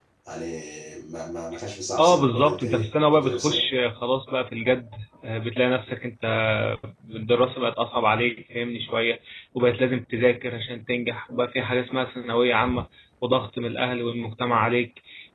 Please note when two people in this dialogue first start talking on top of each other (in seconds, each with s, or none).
2.0 s